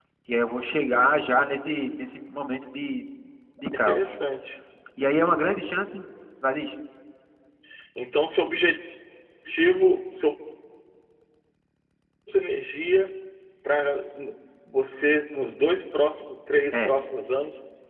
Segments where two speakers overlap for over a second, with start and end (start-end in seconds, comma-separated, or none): none